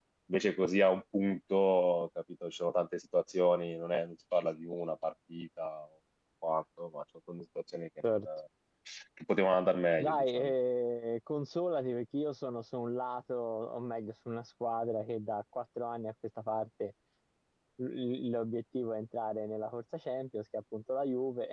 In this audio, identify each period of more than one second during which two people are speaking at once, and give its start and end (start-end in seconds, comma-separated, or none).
none